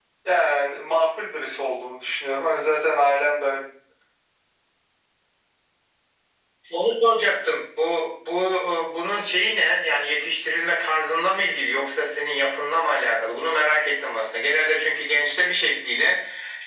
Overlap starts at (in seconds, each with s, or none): none